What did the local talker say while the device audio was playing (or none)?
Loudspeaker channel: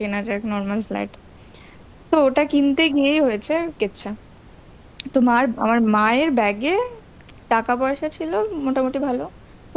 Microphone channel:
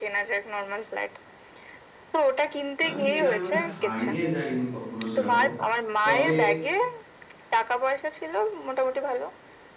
আমি এরকম ভাবে হারিয়ে যাইনি কখনো সেরকম তবে